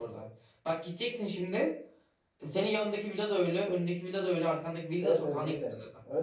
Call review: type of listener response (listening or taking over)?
taking over